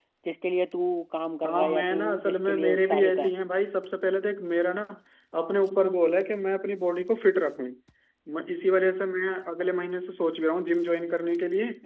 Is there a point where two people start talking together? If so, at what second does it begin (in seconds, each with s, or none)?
1.4 s